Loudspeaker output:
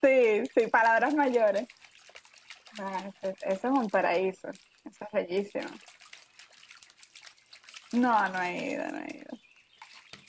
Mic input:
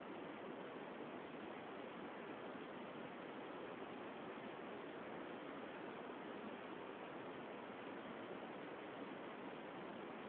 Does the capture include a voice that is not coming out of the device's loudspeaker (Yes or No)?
No